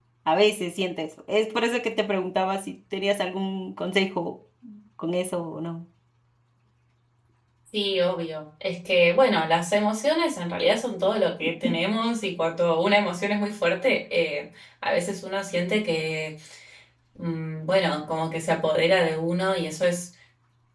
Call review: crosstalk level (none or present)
none